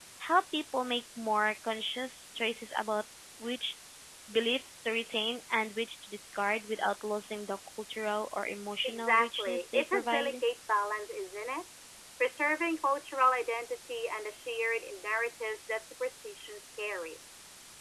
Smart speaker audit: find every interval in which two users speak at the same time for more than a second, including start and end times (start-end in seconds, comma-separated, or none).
8.8-10.3